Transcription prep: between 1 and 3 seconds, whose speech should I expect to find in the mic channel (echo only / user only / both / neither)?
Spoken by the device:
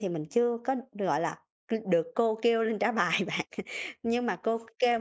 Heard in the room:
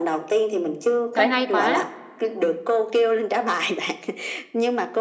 both